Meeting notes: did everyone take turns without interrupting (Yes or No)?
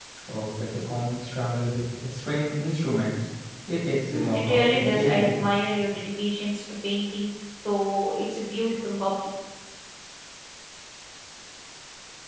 No